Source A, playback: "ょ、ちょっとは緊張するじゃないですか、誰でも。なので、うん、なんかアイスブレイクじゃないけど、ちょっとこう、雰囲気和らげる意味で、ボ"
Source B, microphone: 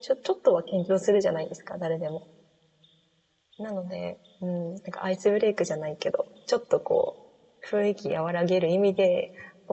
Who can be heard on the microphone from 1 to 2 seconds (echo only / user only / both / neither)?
echo only